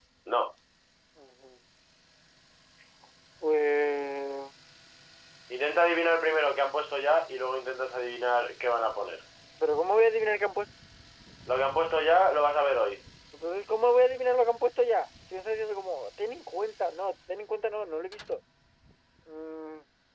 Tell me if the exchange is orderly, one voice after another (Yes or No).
Yes